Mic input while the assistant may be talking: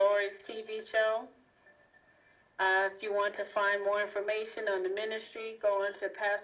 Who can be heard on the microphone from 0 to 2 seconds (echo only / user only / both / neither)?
echo only